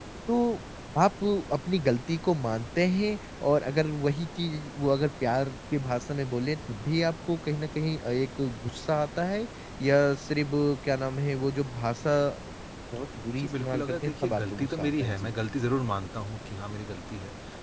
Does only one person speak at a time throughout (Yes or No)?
No